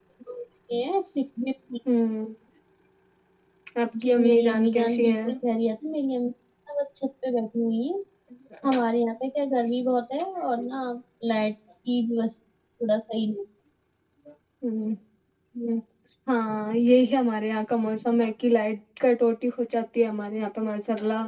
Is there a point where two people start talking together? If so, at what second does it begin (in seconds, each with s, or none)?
4.0 s